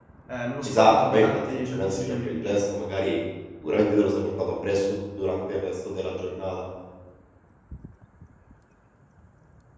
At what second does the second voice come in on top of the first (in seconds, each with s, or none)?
0.7 s